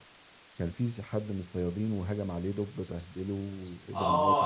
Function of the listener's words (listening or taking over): taking over